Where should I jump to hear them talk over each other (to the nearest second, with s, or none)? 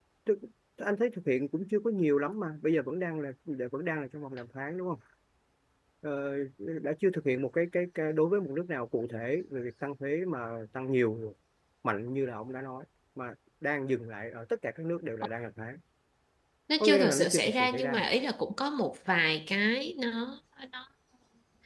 17 s